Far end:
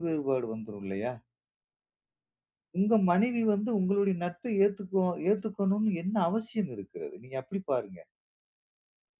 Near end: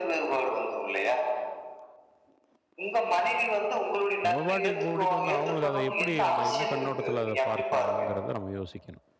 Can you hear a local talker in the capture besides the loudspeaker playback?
Yes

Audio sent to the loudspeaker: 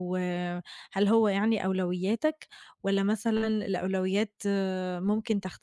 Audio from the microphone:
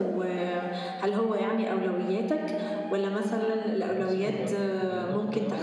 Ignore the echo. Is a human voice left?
Yes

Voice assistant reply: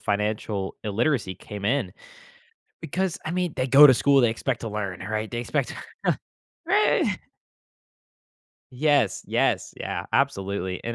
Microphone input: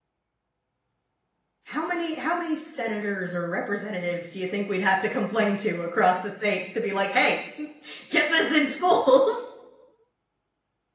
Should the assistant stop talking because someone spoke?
Yes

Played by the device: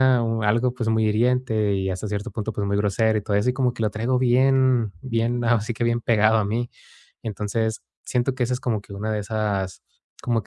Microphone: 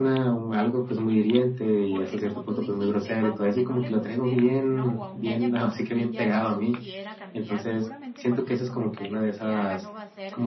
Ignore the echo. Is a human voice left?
Yes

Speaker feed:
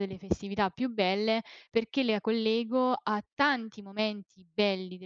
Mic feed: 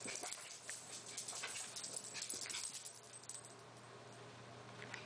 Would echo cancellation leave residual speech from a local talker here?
No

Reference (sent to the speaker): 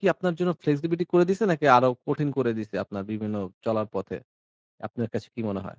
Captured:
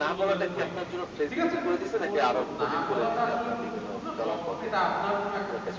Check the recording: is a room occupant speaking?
Yes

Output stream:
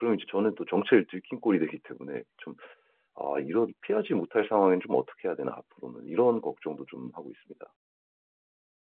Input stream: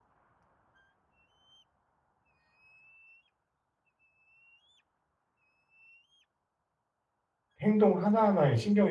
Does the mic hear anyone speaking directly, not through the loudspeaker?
Yes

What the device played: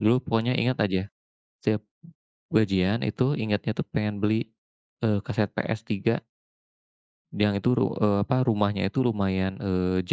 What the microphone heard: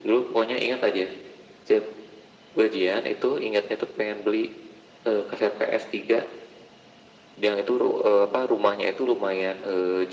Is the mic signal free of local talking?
Yes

